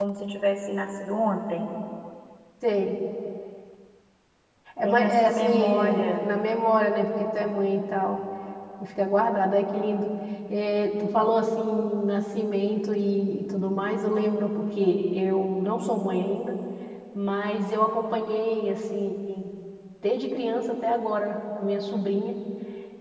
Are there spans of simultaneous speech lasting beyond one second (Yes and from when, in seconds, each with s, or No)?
Yes, from 4.8 s